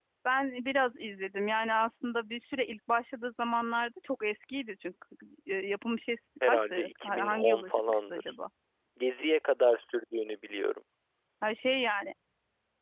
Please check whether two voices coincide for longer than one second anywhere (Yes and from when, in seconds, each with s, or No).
Yes, from 6.4 s